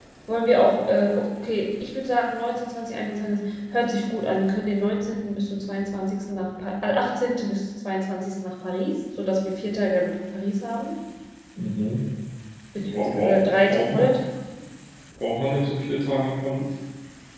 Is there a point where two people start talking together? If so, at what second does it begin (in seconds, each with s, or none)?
12.8 s